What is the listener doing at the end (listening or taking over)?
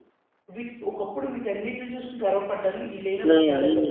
taking over